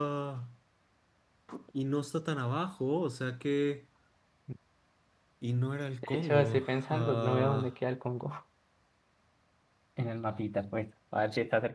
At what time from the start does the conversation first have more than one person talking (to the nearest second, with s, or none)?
6 s